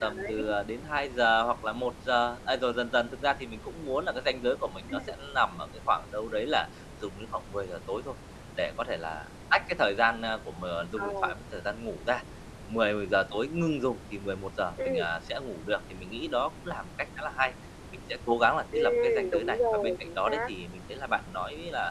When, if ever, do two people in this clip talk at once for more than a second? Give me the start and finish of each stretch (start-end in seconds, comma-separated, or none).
18.8-20.4